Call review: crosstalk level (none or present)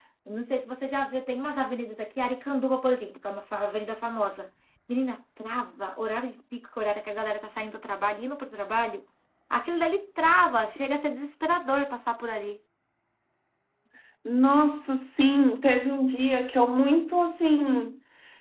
none